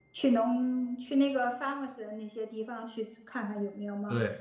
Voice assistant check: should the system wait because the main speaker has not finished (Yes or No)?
No